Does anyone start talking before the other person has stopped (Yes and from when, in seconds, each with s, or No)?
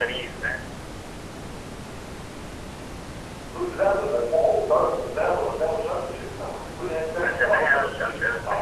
Yes, from 7.2 s